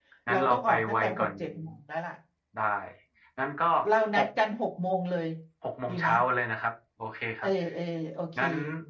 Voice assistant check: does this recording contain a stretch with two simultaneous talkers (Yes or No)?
Yes